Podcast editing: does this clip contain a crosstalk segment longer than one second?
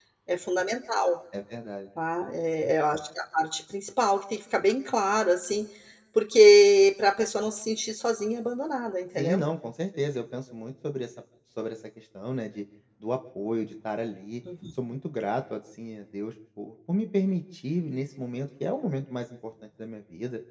No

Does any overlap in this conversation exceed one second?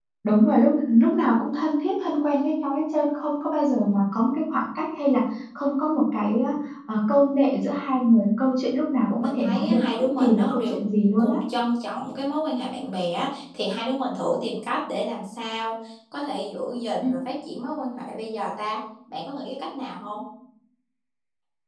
Yes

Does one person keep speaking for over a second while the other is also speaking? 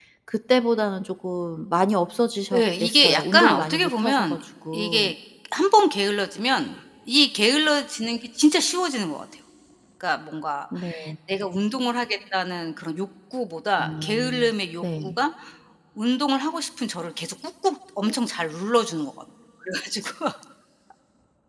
Yes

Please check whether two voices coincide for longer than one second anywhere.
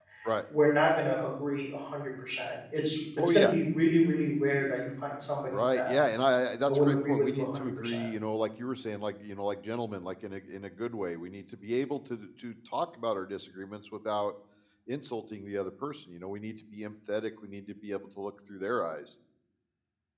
Yes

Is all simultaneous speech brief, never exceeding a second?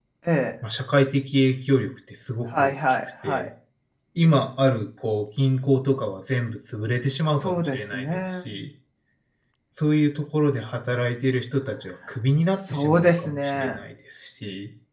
No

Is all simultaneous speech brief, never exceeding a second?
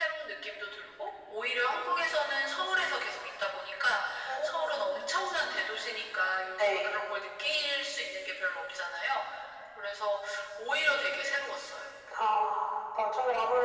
Yes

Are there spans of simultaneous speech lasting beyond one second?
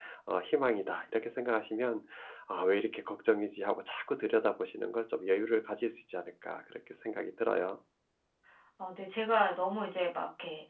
No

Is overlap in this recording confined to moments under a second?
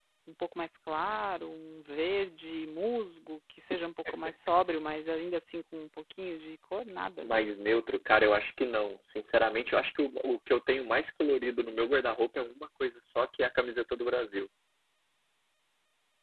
Yes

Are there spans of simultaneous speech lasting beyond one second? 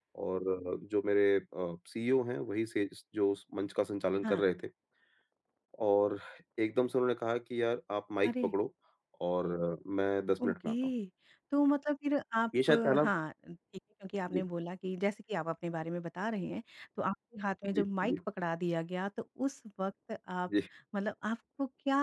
No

